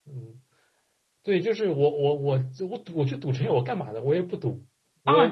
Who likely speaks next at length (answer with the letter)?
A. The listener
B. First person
A